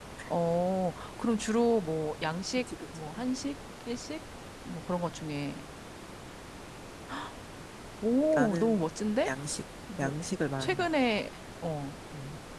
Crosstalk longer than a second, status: none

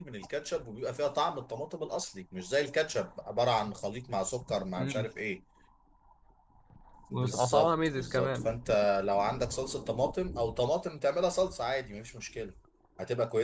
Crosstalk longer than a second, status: present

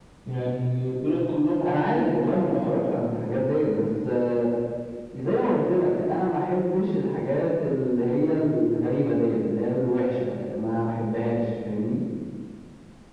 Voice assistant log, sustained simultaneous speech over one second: present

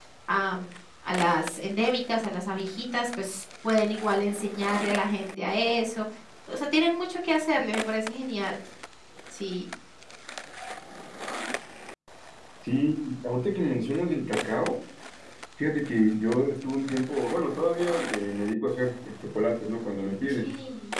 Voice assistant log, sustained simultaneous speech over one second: none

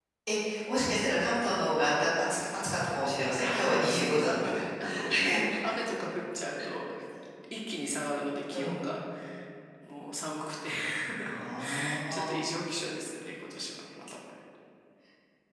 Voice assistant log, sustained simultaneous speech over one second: present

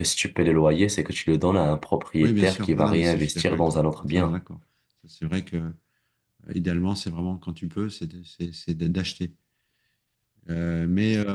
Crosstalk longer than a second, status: present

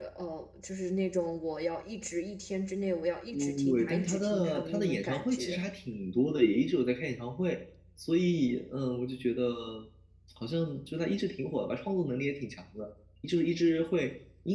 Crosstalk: present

